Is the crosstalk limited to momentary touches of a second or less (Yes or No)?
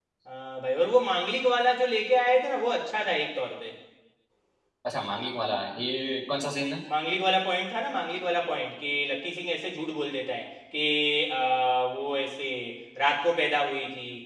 Yes